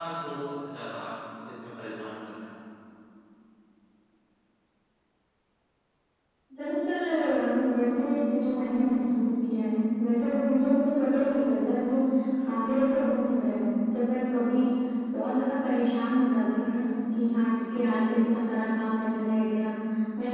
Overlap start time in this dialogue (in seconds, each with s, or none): none